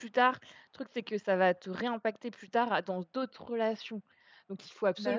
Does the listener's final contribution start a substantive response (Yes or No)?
No